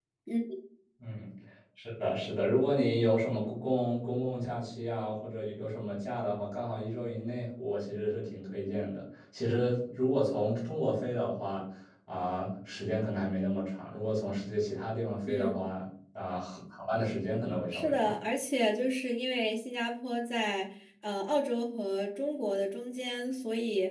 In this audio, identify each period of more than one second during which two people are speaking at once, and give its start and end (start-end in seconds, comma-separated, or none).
none